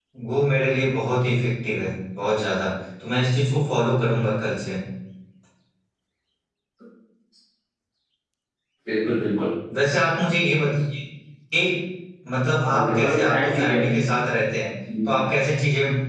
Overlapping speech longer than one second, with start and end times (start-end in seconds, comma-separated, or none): 12.7-14.0